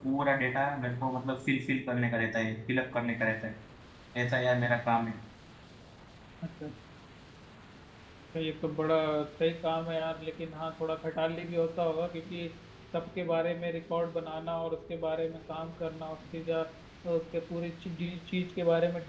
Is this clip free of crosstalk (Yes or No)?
Yes